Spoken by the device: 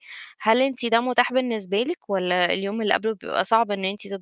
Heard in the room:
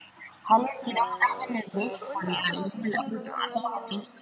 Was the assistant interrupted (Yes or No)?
Yes